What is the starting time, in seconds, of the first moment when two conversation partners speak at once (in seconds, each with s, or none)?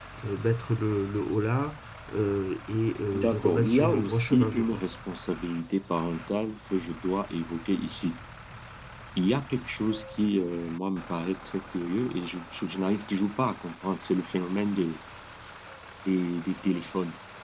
3.1 s